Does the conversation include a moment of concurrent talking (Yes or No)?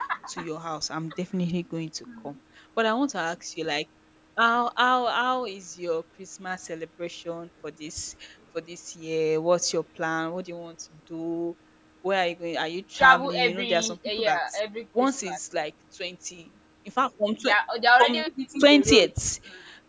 Yes